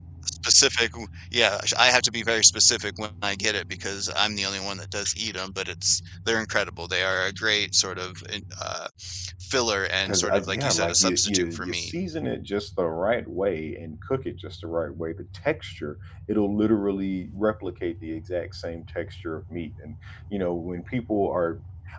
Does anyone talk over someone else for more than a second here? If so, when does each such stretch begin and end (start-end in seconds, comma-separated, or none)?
10.0-11.9